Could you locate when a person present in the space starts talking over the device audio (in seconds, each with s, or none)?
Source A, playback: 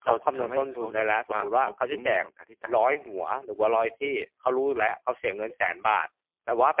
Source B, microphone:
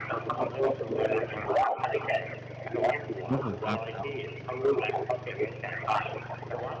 3.3 s